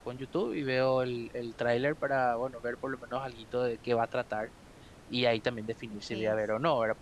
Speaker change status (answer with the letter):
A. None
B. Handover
A